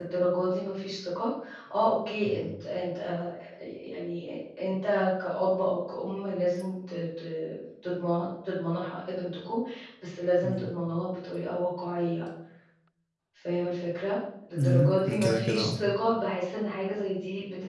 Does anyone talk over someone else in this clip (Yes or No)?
Yes